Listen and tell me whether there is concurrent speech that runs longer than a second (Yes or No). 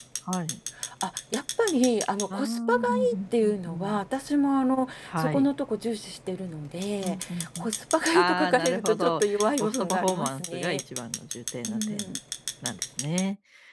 Yes